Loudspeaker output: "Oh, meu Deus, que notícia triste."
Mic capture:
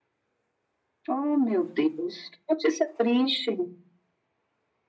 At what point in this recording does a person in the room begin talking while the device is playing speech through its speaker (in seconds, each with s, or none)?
none